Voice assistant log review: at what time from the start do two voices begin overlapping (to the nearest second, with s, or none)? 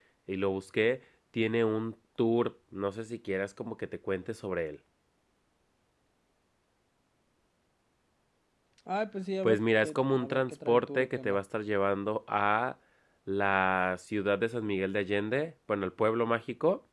9 s